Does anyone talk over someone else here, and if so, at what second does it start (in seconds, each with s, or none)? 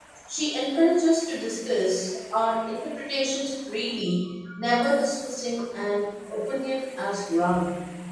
none